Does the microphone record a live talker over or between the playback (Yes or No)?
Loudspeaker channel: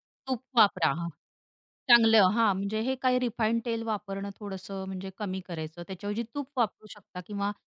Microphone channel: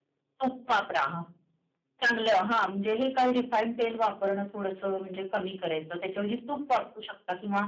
No